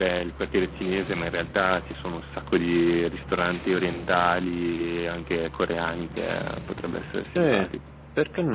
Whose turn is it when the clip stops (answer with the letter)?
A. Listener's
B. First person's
A